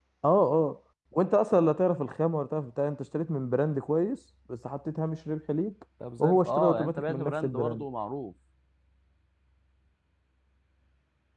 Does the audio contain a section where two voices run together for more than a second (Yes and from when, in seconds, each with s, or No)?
Yes, from 6.0 s